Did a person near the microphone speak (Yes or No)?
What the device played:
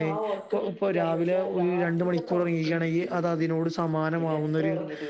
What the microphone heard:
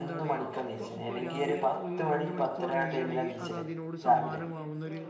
Yes